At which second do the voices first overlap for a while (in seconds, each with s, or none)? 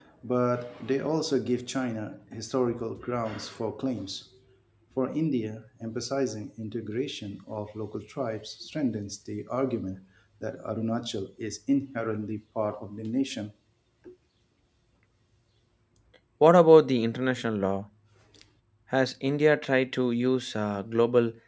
none